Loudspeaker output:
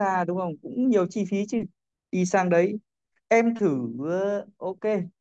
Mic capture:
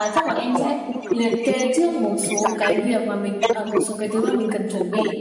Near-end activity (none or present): present